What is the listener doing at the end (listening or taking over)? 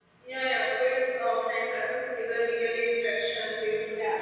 listening